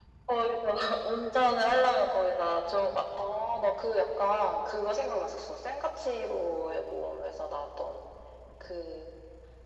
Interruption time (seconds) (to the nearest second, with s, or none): none